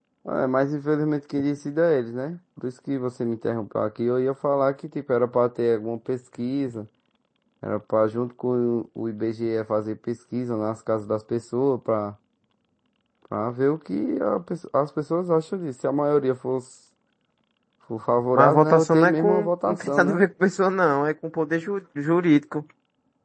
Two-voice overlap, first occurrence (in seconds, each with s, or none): 18.3 s